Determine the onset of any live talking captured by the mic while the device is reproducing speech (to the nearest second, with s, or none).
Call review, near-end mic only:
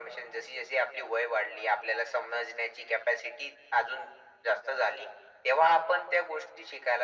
none